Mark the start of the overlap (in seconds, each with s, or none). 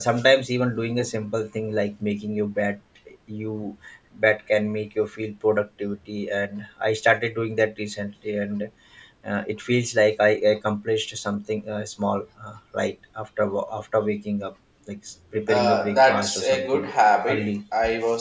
15.5 s